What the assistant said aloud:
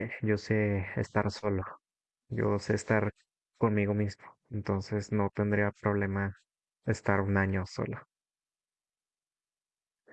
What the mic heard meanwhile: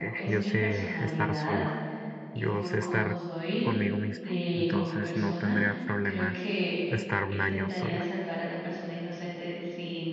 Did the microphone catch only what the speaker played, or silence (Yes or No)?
No